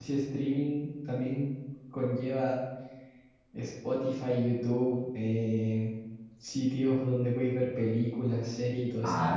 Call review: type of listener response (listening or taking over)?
taking over